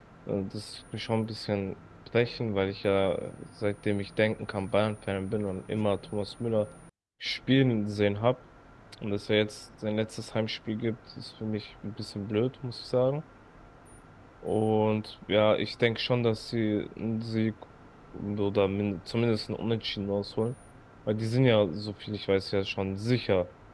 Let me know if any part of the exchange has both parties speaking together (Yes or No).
No